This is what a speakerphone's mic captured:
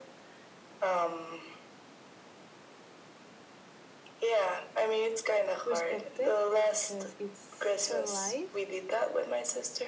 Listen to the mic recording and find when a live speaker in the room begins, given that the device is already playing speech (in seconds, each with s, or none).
5.6 s